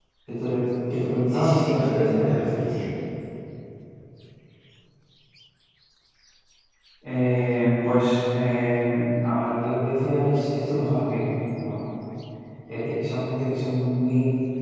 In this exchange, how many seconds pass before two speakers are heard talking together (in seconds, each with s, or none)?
1.3 s